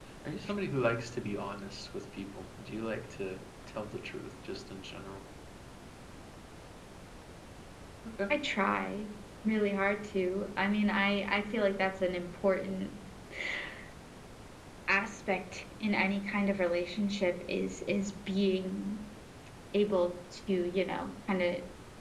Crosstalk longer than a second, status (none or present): none